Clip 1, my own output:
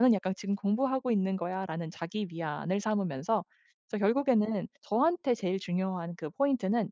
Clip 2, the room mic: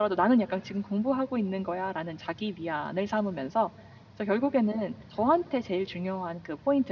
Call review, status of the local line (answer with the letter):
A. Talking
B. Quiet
B